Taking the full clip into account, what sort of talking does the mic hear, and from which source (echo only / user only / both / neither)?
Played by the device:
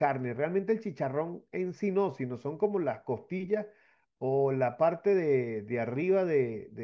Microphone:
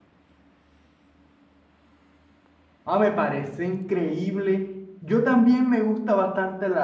user only